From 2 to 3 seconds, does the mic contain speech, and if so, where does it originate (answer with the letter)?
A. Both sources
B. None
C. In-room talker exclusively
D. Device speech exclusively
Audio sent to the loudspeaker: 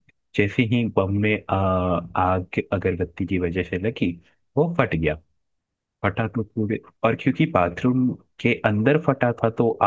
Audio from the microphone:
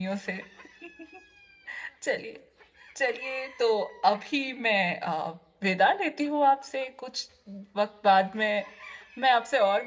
C